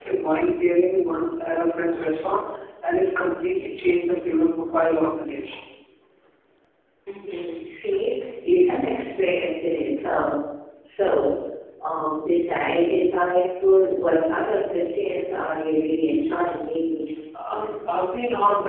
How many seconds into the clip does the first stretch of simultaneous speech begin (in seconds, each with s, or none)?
none